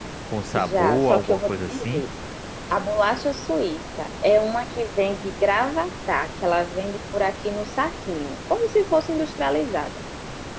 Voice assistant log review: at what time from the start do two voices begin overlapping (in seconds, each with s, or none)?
0.6 s